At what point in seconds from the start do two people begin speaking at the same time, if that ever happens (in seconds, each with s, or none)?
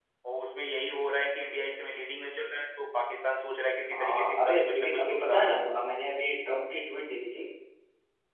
3.9 s